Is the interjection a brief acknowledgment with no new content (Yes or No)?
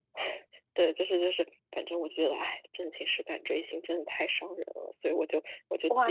No